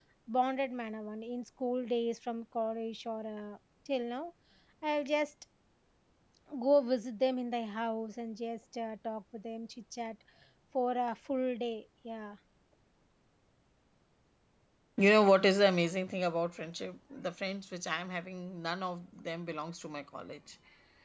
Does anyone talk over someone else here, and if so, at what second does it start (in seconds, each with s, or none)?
none